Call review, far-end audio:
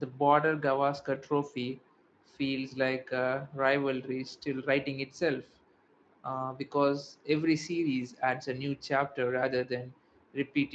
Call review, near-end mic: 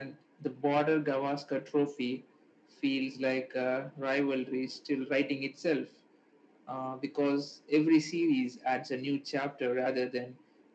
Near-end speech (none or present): none